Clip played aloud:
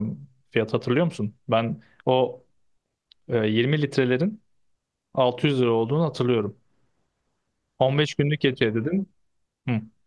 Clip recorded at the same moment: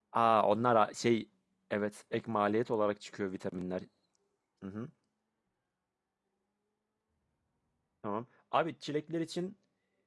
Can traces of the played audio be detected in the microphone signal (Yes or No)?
No